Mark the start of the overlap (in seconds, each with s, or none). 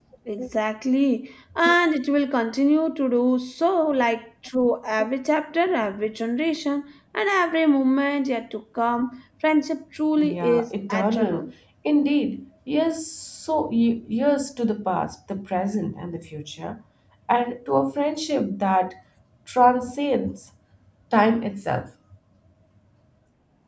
10.2 s